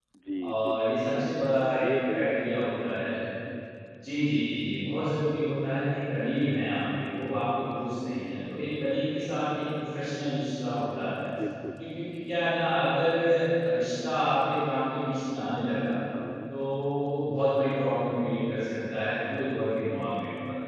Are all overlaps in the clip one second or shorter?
No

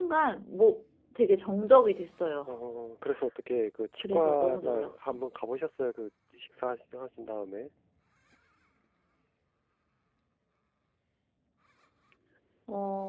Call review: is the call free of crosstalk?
No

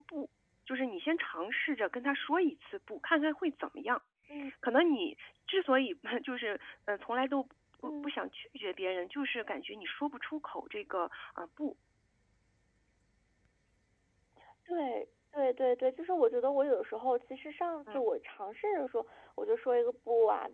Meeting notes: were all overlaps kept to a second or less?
Yes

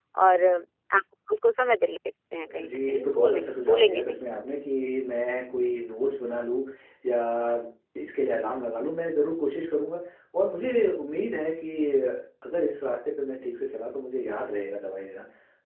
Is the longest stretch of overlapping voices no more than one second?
No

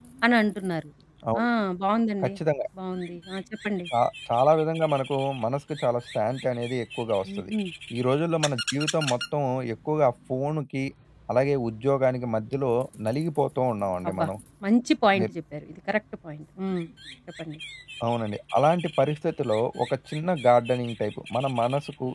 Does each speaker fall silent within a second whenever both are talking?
Yes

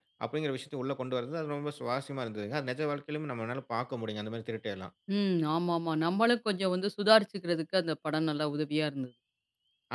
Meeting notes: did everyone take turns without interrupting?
Yes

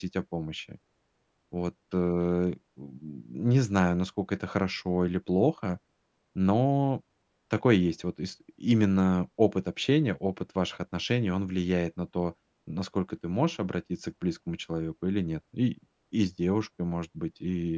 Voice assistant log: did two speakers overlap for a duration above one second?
No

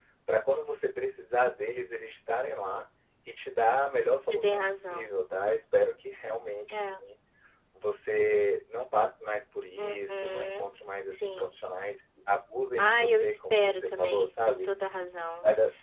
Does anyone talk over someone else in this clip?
Yes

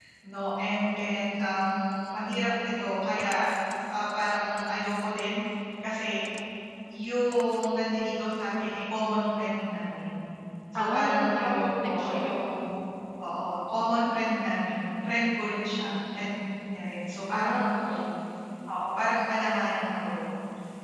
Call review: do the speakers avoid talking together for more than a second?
No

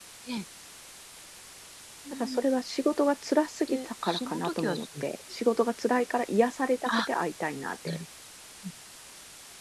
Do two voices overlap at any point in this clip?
Yes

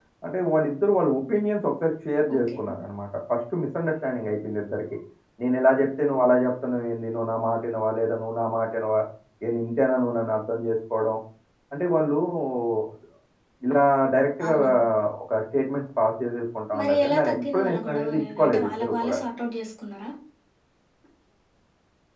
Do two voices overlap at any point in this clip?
Yes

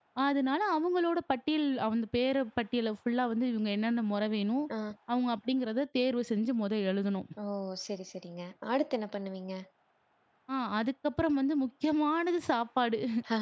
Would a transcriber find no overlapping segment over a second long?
Yes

